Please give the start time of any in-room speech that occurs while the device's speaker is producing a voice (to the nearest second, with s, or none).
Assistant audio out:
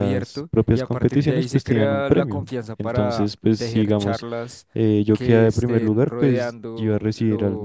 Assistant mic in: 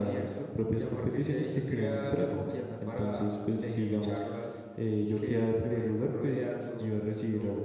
none